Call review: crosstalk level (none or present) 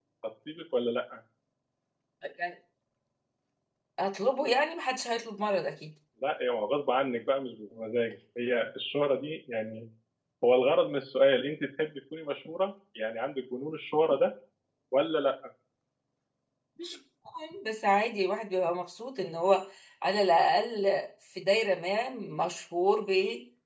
none